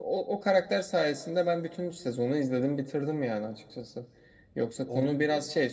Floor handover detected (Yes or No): No